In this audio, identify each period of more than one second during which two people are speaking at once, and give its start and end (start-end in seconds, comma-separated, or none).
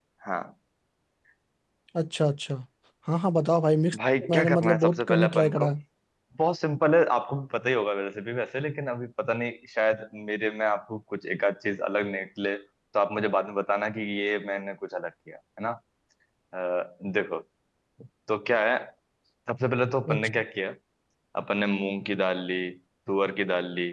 4.0-5.7